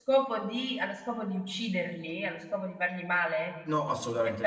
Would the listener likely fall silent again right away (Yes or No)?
No